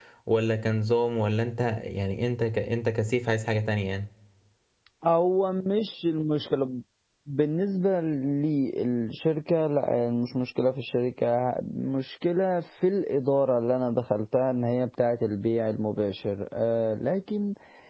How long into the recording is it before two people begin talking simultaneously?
none

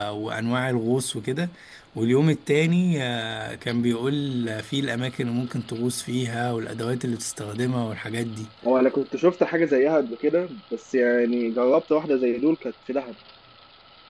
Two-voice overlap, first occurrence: none

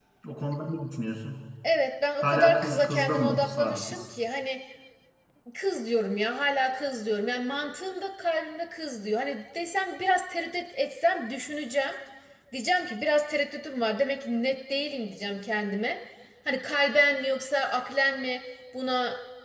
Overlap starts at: 2.2 s

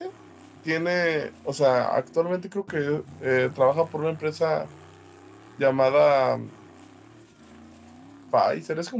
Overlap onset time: none

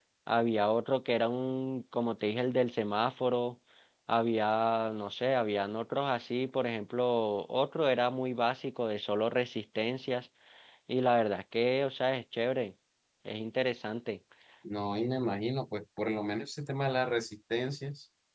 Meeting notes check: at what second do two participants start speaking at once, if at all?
none

